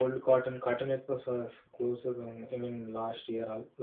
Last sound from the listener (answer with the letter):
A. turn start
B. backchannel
B